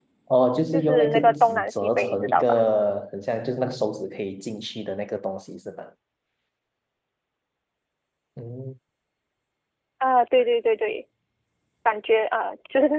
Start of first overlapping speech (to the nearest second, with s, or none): 1 s